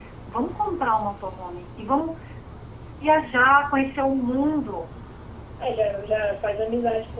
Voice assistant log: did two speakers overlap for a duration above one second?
No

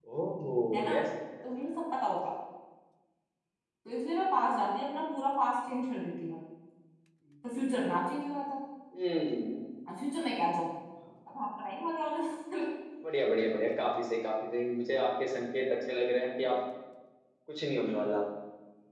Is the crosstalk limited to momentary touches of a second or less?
Yes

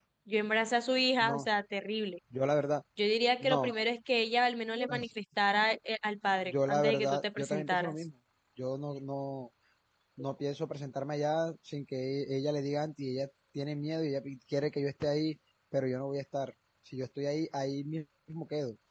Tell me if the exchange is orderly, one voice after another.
No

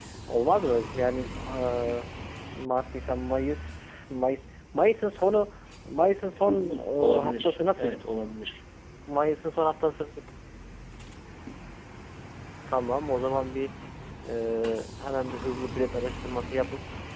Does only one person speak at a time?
No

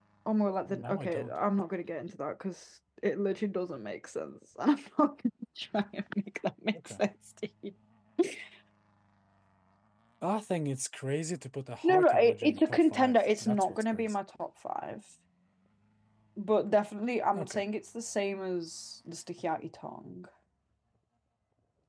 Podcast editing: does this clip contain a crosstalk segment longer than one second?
Yes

